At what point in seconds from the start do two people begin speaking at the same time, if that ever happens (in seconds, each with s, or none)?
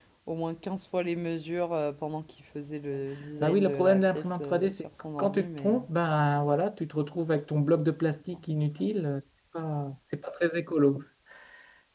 3.4 s